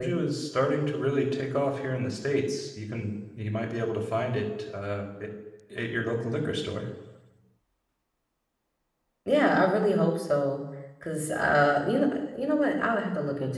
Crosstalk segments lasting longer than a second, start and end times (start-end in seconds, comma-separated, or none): none